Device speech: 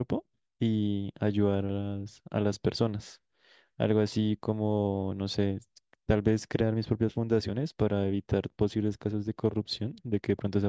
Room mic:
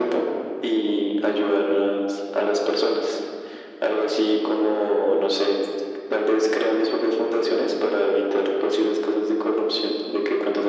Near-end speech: none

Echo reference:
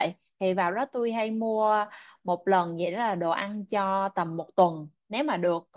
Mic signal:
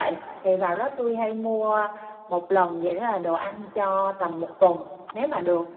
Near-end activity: none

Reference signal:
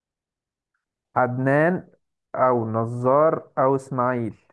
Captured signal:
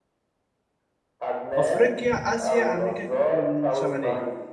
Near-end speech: present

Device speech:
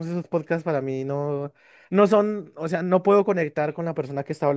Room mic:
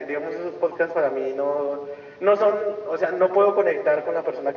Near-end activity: none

